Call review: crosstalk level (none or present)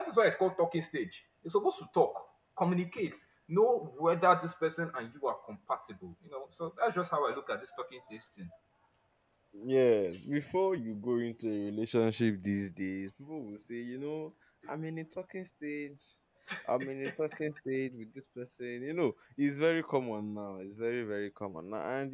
none